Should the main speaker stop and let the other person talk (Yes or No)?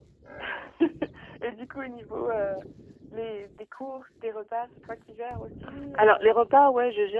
Yes